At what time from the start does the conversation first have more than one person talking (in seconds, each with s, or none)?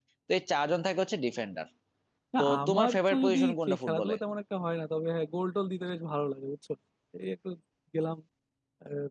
2.4 s